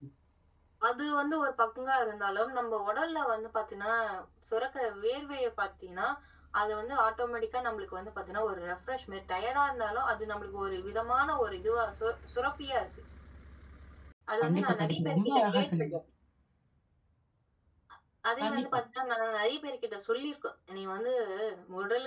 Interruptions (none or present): present